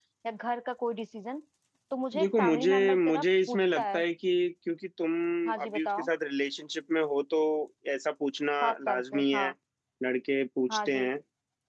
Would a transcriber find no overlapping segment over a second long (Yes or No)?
No